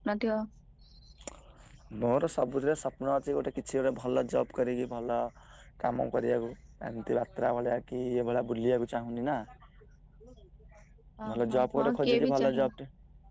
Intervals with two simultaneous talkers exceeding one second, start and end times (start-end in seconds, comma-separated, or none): 11.3-12.7